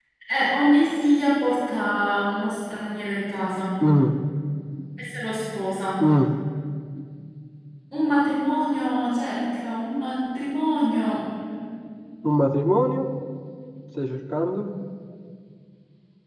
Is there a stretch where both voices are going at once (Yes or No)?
No